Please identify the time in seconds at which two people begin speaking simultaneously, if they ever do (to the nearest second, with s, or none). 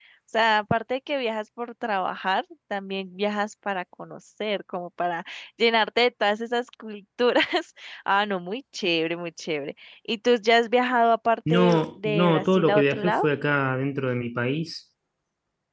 11 s